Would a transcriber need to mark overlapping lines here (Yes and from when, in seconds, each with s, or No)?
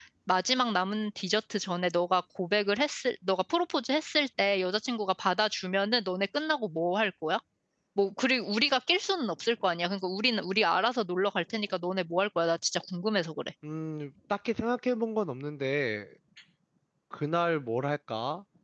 No